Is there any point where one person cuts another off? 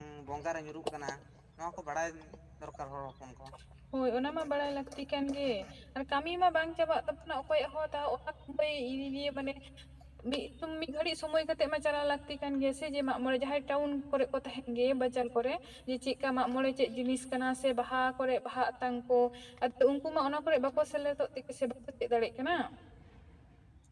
No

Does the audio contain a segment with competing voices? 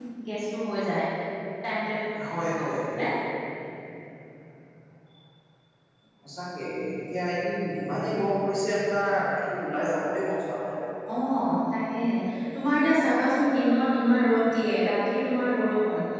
No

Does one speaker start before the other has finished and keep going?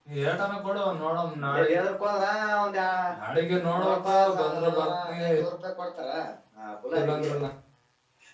Yes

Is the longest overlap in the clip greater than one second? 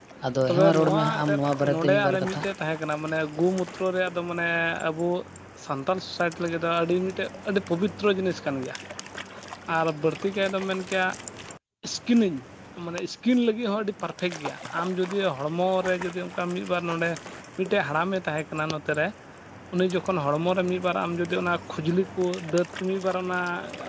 Yes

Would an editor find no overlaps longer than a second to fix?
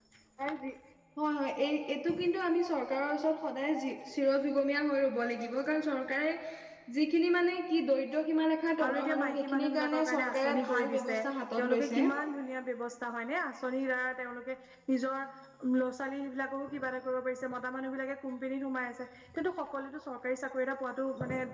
No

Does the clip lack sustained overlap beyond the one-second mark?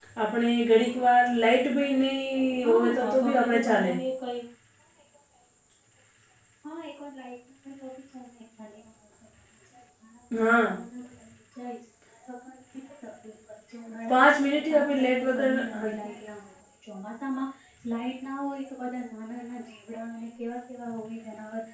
No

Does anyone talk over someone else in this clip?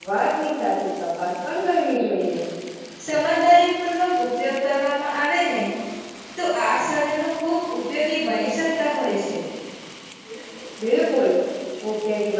No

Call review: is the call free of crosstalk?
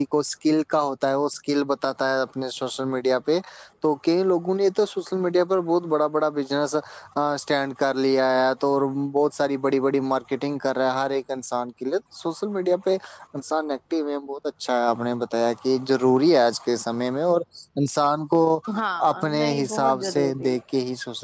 No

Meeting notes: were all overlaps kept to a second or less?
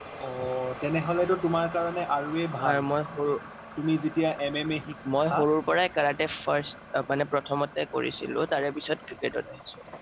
Yes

